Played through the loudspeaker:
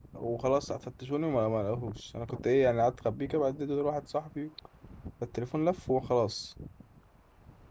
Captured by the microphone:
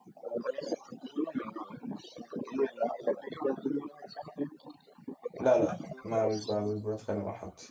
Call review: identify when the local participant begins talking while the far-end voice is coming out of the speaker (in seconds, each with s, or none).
5.4 s